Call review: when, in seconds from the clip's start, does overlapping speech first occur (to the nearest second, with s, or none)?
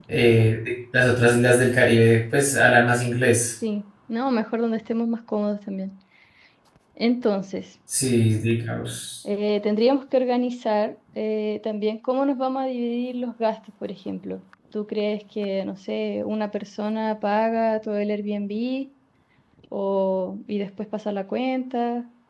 none